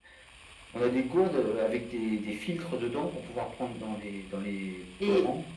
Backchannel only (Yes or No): No